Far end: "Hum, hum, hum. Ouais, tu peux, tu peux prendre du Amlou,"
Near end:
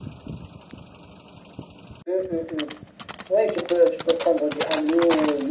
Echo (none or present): present